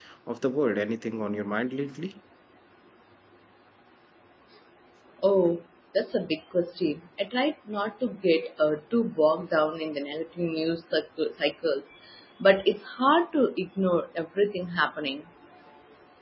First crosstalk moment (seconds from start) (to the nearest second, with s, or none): none